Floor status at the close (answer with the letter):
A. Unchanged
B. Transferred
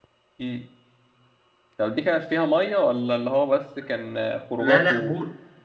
B